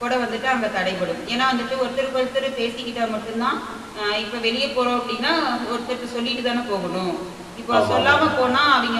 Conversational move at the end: listening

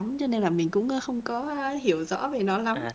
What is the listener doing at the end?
taking over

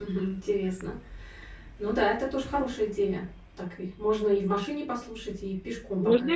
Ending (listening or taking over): taking over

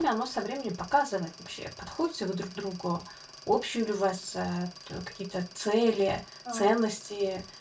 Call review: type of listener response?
listening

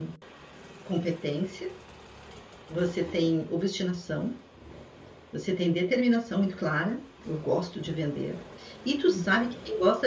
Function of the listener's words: listening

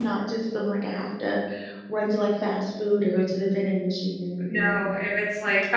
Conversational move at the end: taking over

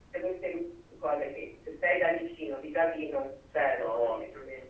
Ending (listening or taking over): taking over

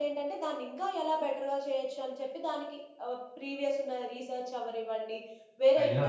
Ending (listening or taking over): listening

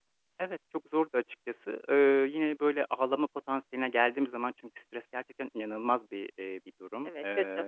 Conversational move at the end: listening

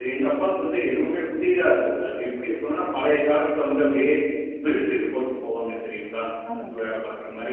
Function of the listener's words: listening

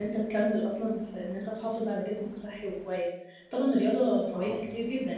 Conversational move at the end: listening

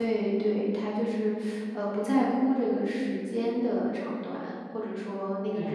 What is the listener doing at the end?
listening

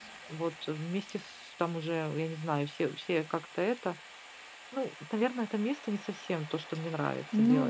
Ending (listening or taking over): taking over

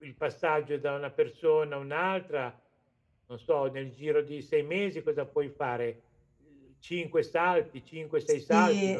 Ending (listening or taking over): taking over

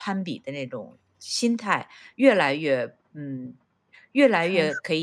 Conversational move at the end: listening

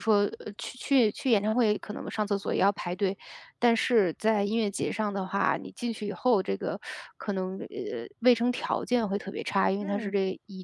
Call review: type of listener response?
listening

